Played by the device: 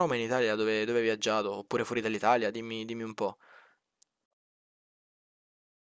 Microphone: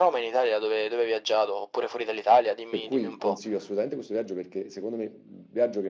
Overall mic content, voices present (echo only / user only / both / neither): both